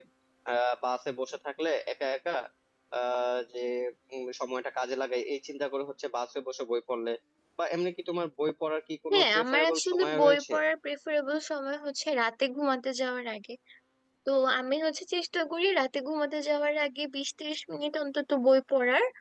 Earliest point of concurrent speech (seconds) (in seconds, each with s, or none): 9.1 s